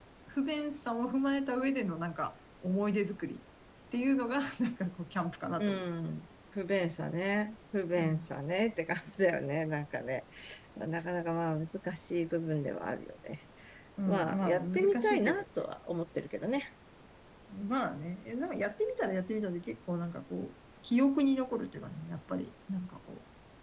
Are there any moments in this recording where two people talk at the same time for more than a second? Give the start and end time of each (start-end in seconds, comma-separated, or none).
14.1-15.4